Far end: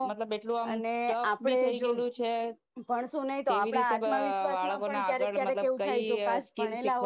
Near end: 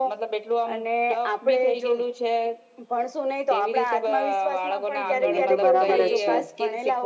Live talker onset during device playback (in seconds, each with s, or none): 5.0 s